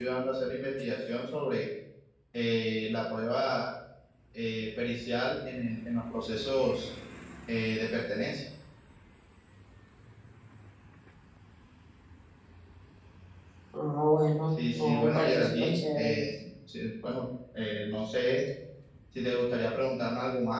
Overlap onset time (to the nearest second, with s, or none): 14 s